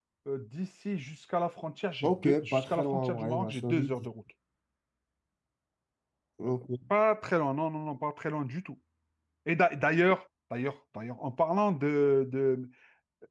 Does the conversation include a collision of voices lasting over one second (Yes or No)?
Yes